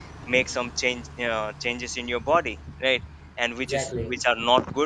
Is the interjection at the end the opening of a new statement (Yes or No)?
No